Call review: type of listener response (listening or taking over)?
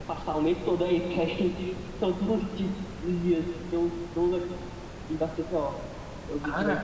listening